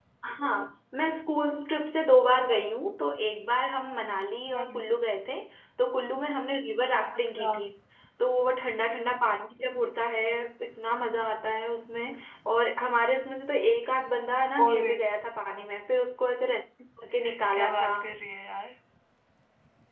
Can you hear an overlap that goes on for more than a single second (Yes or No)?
No